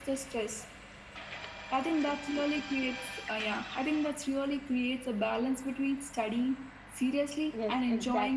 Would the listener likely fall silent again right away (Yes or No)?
No